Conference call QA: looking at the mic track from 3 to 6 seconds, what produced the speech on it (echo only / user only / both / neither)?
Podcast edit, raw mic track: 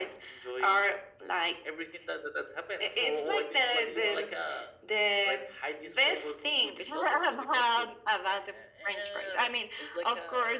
echo only